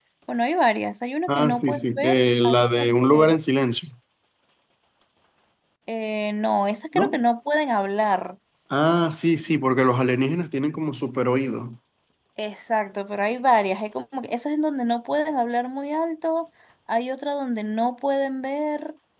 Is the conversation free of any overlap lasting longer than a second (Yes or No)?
No